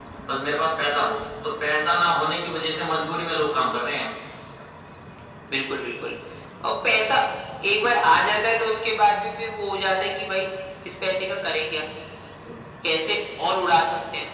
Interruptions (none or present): none